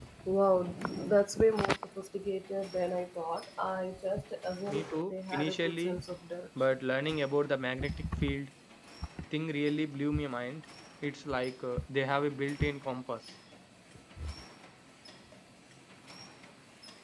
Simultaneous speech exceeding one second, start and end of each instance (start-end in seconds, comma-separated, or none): 4.7-6.0